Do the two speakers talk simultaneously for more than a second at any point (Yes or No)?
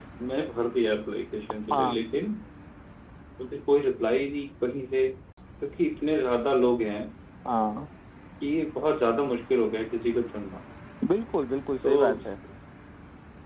No